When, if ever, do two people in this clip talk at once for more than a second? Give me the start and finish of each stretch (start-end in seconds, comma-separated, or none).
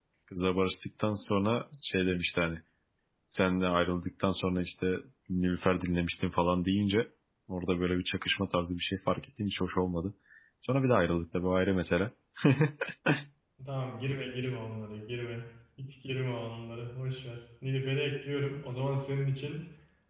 none